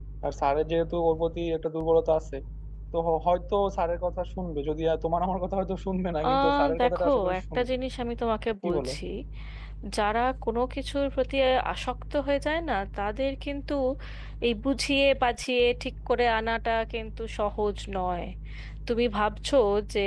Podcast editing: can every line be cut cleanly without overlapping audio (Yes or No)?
No